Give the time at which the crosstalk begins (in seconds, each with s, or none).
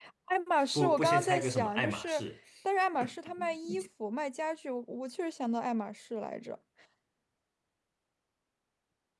0.7 s